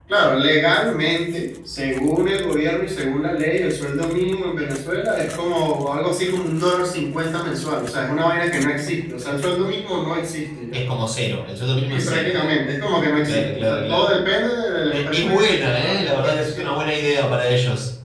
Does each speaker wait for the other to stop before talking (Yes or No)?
No